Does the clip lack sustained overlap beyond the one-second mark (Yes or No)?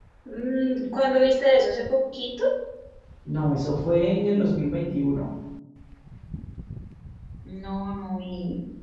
Yes